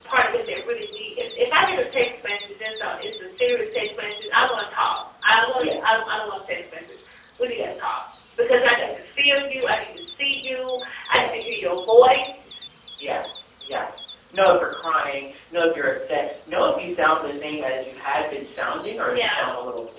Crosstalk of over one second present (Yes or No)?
No